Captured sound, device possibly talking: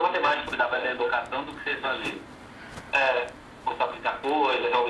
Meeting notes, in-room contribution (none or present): none